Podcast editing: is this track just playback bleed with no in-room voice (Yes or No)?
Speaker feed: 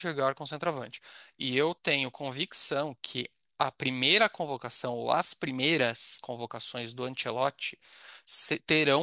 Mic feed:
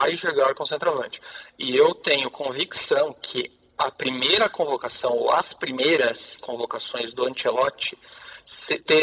Yes